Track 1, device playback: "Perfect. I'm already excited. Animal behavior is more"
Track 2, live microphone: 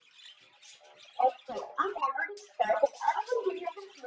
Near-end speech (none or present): none